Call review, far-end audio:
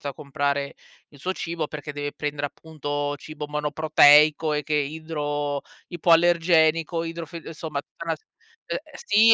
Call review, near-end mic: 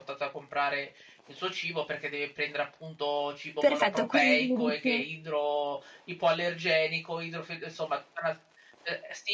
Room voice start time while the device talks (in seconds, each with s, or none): 3.6 s